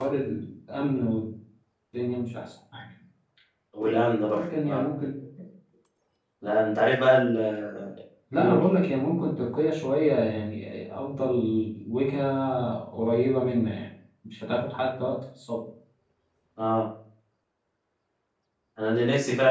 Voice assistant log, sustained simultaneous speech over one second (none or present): none